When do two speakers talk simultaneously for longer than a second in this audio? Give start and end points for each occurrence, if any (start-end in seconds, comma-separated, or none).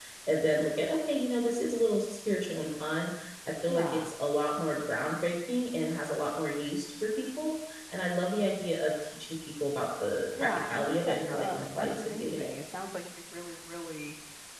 10.4-12.5